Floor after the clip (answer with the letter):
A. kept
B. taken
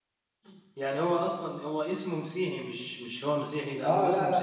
B